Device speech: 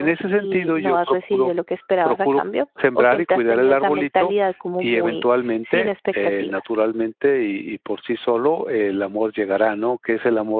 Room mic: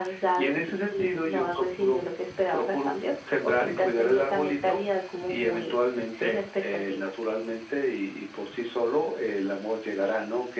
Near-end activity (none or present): none